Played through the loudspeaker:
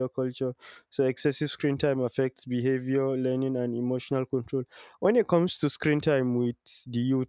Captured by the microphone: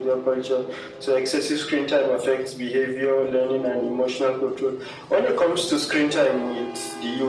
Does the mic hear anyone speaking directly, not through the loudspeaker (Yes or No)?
No